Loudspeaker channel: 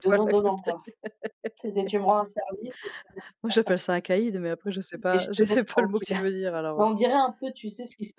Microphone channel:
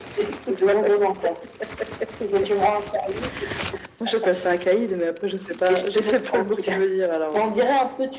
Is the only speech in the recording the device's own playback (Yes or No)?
Yes